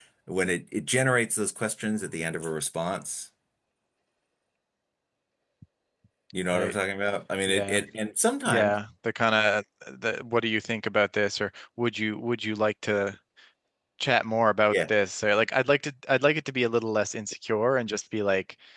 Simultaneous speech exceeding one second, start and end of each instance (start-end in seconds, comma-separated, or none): none